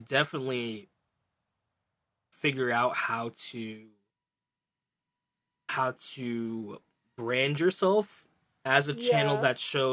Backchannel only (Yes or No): Yes